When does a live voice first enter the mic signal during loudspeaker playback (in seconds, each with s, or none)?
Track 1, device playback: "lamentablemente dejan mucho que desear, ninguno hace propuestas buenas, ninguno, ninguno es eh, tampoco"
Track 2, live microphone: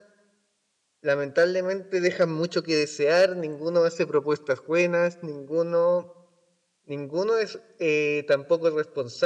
none